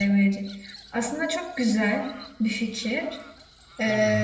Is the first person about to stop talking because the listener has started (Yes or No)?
No